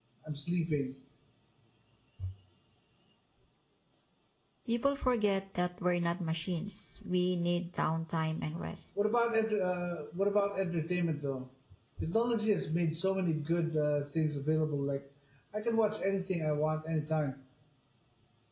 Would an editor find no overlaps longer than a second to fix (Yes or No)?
Yes